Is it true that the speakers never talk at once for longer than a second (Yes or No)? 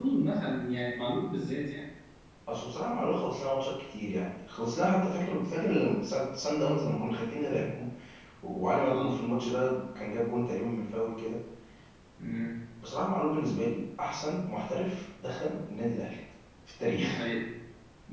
Yes